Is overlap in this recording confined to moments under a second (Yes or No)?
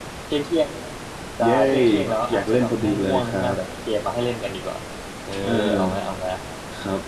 No